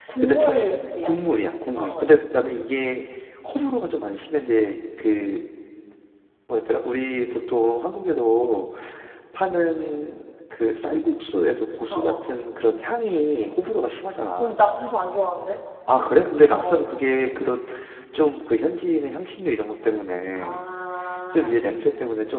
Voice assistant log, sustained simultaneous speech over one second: none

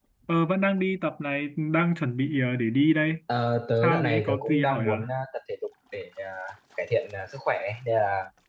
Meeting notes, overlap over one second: present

